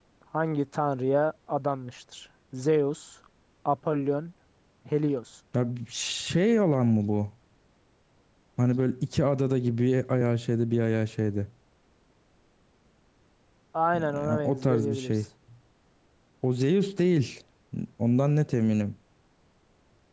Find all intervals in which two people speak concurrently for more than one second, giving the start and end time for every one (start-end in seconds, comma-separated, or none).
13.9-15.2